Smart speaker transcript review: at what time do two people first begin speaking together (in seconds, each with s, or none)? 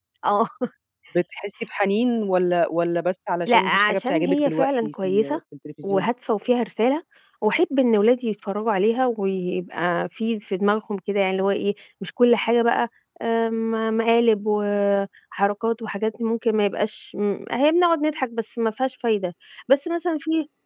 3.5 s